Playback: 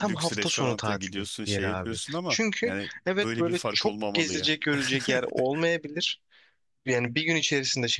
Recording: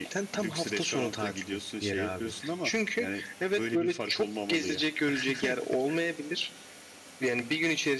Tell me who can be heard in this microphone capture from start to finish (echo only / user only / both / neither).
echo only